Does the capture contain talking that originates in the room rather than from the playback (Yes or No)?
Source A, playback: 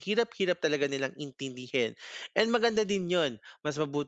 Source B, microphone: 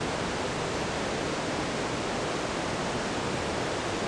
No